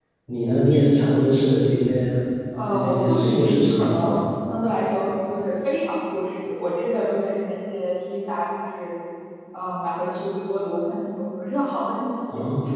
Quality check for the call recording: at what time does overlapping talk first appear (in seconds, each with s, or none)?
2.6 s